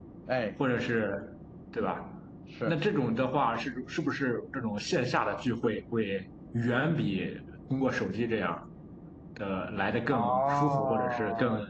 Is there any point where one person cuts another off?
Yes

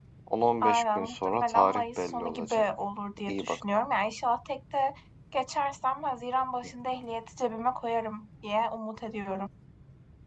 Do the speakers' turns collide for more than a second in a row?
Yes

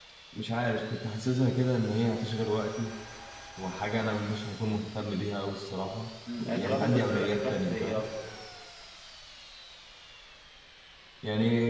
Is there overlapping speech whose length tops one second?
Yes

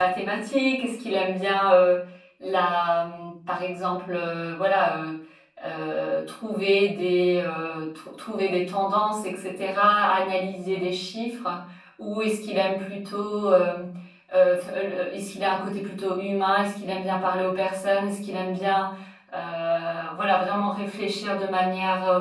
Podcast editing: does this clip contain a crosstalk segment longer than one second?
No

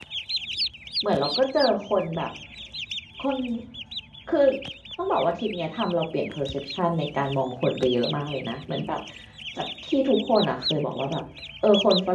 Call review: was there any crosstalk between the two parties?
No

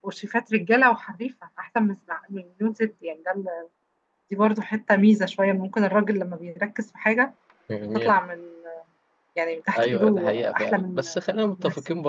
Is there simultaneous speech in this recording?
Yes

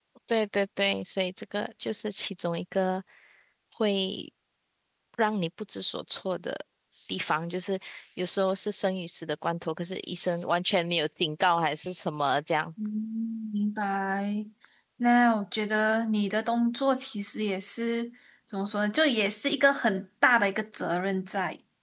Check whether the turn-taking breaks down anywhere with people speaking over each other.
No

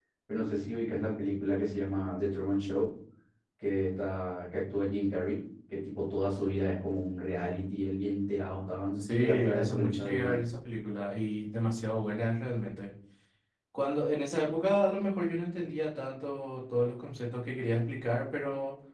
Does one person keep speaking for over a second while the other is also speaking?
Yes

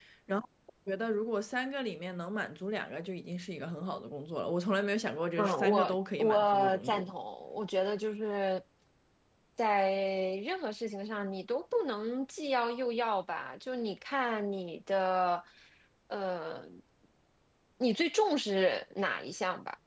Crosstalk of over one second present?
Yes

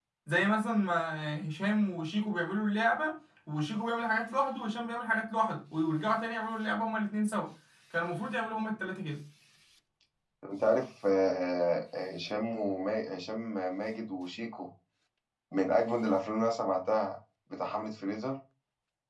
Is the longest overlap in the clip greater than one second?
No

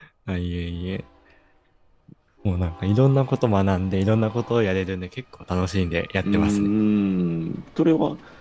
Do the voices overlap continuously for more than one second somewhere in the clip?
No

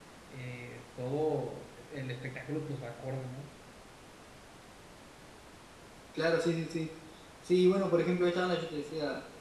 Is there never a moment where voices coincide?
Yes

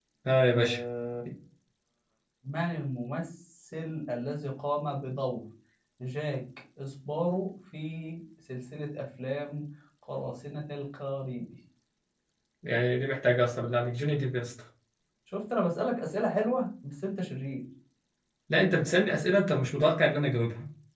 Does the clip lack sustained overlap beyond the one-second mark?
Yes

